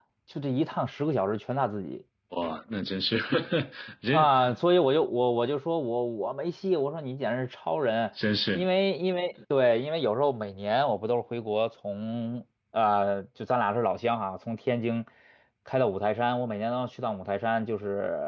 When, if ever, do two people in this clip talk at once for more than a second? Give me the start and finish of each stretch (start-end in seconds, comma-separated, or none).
none